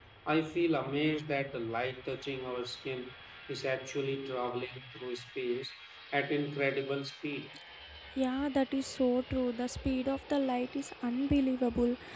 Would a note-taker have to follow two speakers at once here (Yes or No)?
No